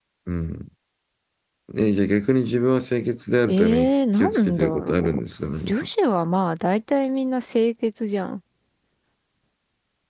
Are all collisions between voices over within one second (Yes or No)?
No